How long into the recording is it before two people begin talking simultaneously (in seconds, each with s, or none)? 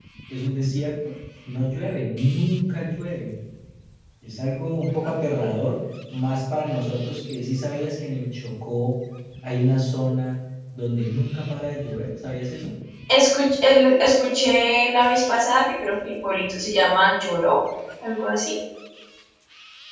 none